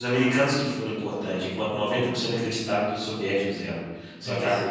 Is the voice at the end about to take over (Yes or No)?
No